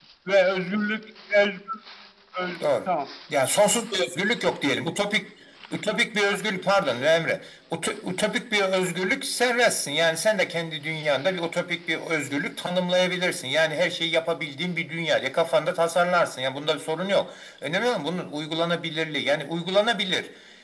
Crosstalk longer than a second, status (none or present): none